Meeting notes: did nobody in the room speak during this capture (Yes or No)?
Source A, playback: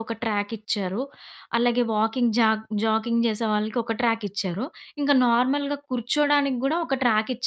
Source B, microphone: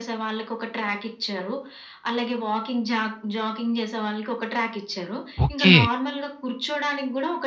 No